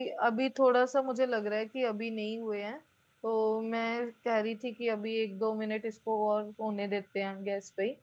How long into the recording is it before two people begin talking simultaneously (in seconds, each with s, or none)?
none